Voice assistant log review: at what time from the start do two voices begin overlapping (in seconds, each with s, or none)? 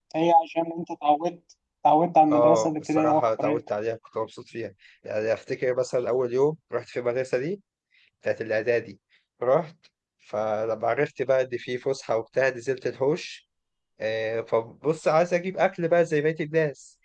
2.3 s